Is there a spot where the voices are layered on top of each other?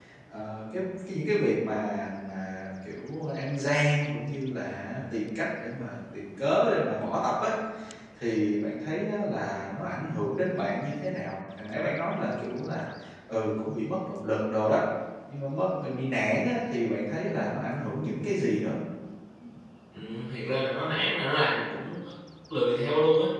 No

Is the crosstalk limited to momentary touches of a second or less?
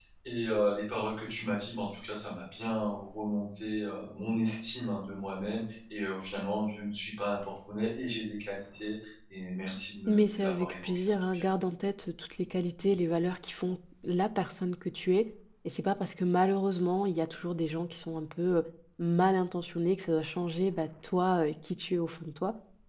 No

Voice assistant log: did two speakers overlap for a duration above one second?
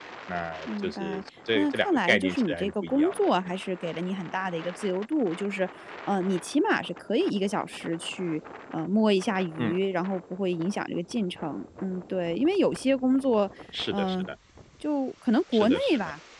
Yes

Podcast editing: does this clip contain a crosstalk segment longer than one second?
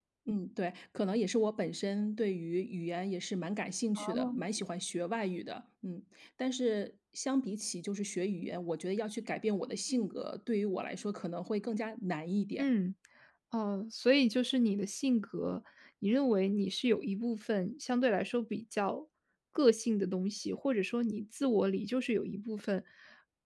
No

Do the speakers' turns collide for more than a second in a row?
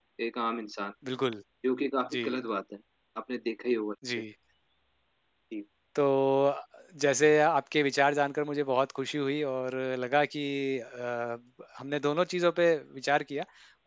No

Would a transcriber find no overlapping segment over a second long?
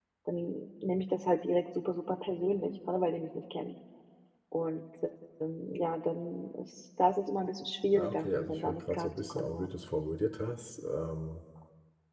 No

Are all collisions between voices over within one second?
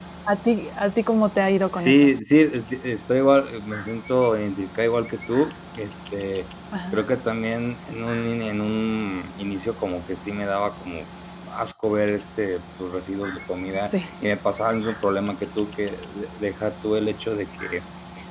Yes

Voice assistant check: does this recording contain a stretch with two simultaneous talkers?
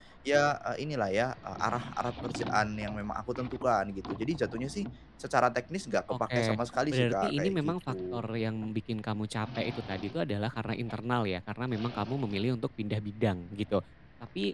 Yes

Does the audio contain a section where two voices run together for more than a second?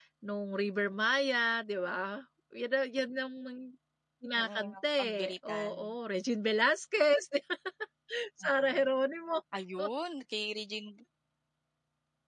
Yes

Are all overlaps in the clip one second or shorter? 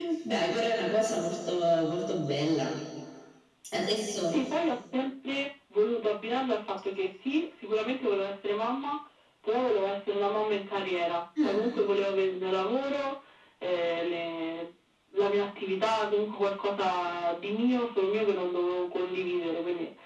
Yes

